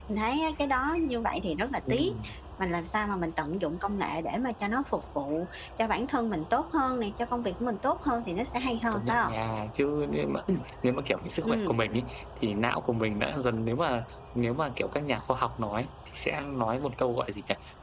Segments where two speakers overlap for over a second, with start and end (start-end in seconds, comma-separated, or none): none